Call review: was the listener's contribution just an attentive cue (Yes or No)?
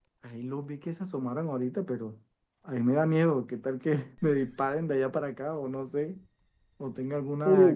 Yes